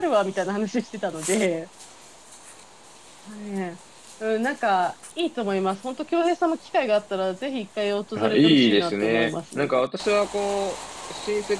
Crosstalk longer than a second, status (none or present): present